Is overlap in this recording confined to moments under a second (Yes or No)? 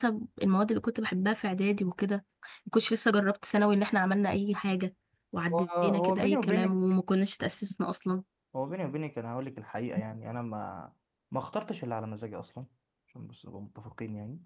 No